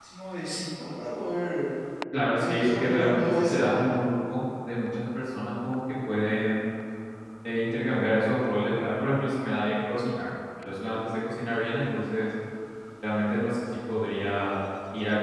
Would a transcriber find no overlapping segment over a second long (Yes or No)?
No